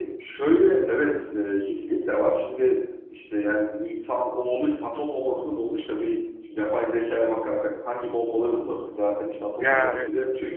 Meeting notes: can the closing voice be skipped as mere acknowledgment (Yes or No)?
Yes